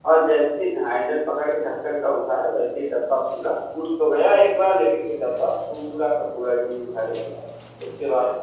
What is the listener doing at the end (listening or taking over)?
listening